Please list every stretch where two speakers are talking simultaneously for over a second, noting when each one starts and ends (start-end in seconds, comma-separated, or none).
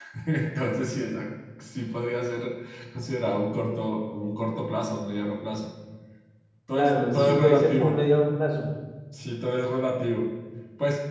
6.8-8.0